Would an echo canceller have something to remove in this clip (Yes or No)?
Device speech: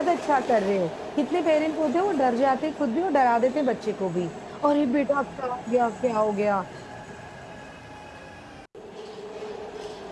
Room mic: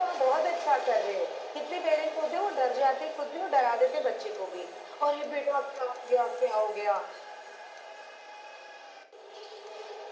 Yes